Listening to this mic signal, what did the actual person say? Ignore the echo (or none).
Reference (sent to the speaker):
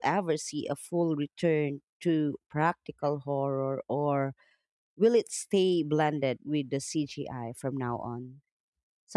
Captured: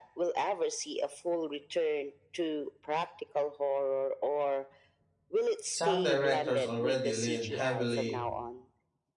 Some directors already lean heavily